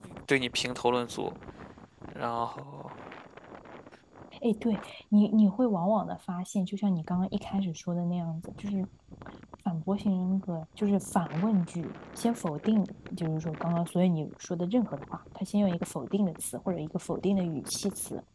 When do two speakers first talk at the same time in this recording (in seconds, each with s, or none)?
none